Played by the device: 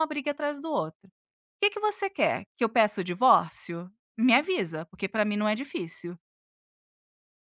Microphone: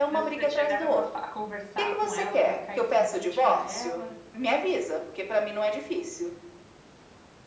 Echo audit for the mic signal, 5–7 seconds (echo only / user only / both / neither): echo only